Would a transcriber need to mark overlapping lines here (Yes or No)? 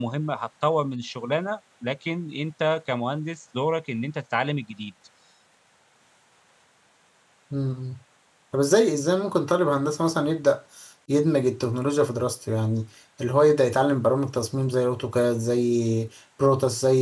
No